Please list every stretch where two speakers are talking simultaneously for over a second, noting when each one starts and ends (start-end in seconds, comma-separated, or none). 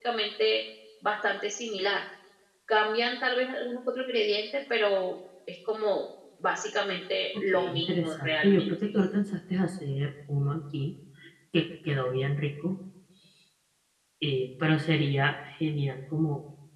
7.3-8.7